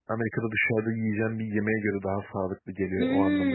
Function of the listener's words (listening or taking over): taking over